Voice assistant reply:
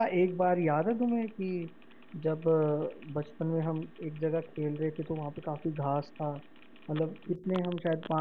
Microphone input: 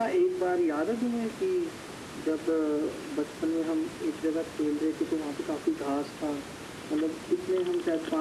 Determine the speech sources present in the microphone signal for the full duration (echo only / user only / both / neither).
echo only